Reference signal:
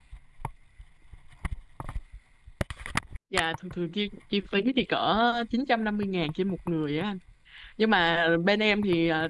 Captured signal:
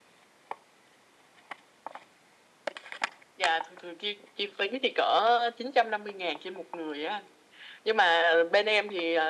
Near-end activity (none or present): none